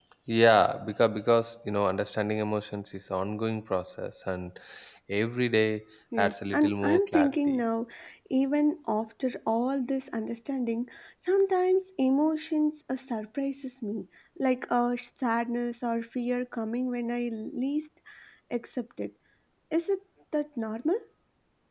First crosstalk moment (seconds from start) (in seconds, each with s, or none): 6.1 s